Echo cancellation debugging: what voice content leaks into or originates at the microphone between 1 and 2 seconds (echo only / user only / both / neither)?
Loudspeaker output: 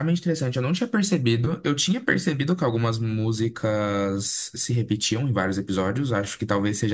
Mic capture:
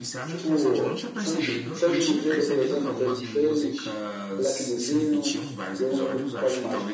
both